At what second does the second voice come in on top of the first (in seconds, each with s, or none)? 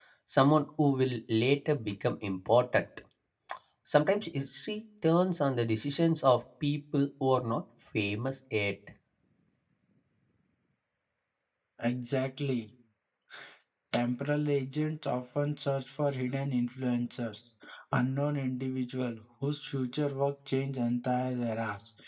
none